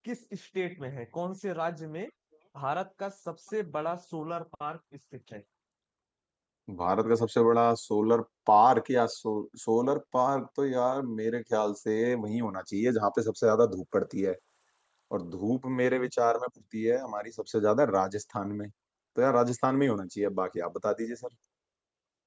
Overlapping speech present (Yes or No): No